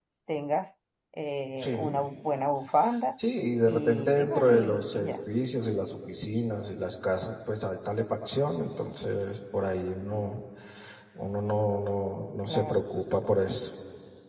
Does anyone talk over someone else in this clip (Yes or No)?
Yes